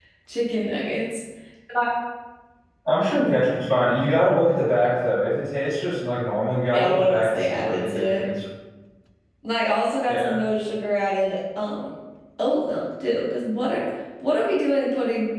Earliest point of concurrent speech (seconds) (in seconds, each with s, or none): 6.7 s